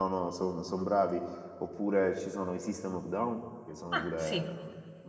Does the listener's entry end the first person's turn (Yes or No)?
No